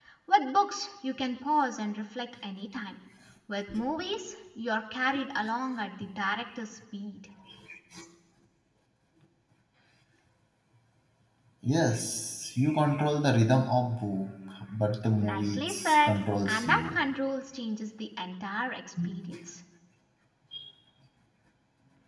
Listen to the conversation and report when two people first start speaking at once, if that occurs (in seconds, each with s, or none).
15.2 s